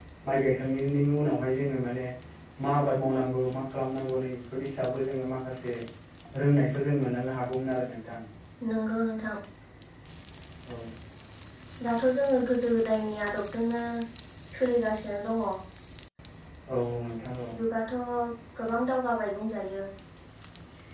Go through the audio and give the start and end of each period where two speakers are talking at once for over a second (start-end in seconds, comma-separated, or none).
none